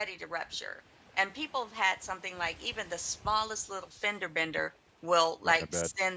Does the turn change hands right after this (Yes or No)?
No